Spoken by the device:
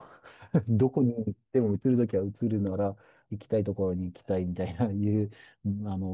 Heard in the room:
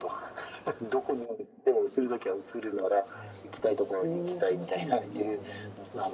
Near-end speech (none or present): present